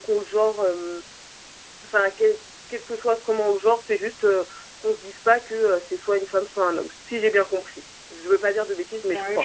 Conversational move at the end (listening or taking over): taking over